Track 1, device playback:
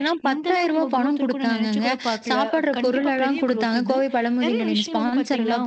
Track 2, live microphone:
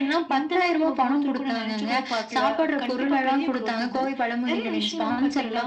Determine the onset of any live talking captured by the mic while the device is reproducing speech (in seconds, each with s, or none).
none